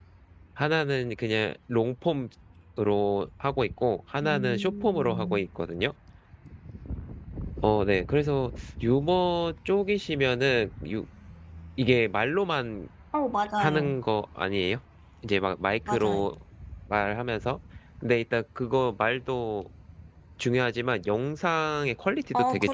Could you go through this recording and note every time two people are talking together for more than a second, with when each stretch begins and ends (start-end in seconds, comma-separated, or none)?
4.2-5.5